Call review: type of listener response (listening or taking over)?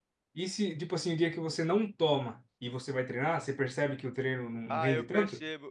taking over